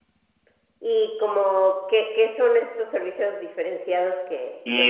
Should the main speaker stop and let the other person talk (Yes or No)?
Yes